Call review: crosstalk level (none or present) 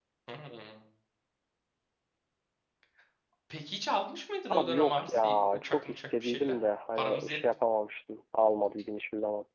present